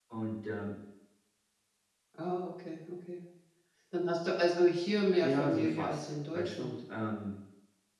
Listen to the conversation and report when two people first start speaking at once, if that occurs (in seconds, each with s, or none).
5.2 s